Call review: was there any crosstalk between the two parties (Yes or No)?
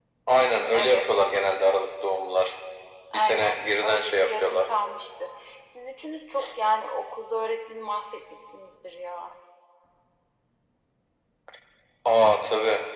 Yes